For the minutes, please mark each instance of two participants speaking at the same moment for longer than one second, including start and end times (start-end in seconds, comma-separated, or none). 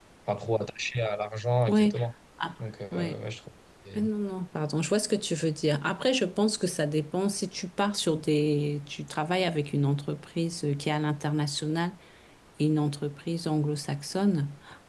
none